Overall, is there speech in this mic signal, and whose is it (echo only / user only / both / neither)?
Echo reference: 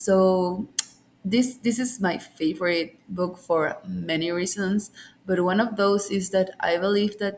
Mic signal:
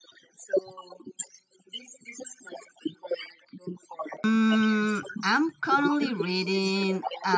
both